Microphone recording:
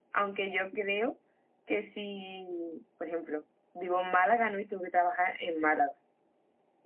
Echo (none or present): present